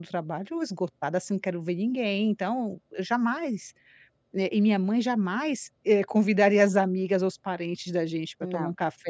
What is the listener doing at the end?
listening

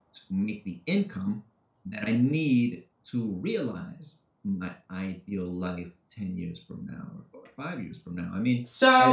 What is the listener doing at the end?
taking over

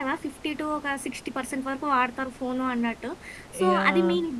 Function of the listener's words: listening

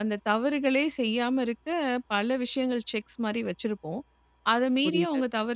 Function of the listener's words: listening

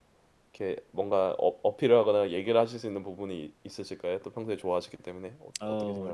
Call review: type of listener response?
taking over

